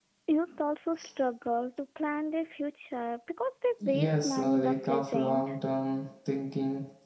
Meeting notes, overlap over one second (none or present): present